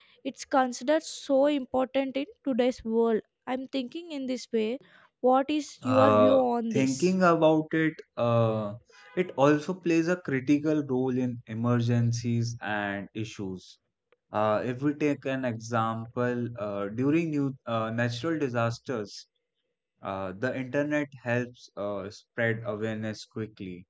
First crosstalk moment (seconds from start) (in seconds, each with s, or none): 5.8 s